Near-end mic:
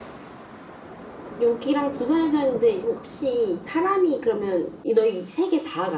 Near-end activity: none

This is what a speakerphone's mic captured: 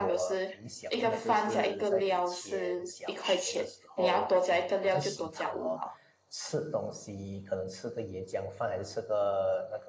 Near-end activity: present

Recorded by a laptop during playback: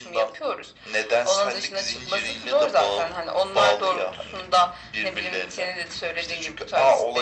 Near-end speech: none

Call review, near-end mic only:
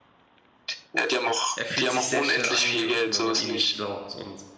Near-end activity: present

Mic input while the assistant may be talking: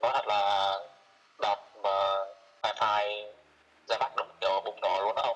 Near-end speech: none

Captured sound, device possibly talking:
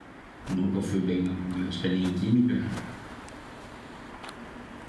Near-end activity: present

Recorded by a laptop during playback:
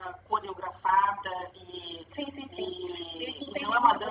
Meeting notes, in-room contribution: none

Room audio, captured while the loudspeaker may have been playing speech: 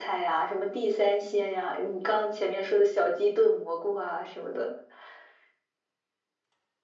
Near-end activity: none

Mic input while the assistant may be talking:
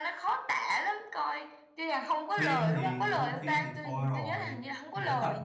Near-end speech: present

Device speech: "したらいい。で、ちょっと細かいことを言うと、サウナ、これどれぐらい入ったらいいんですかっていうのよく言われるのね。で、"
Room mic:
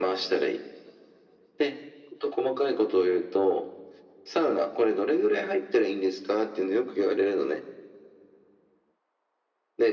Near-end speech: none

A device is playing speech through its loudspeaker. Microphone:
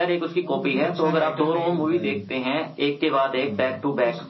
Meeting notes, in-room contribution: present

